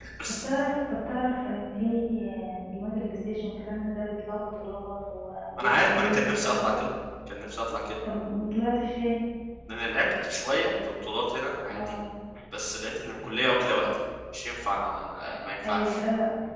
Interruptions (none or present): present